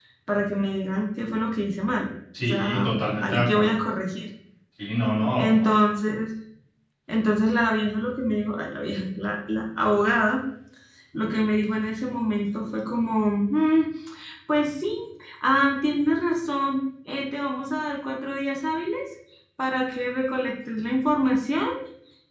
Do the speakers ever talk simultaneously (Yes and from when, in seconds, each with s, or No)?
Yes, from 2.4 s